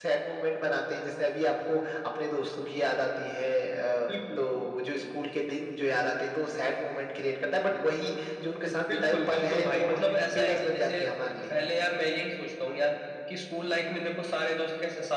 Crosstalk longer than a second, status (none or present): present